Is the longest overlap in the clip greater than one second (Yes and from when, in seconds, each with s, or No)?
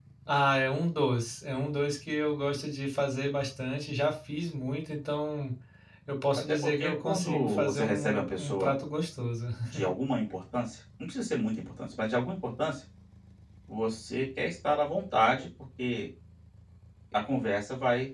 Yes, from 6.4 s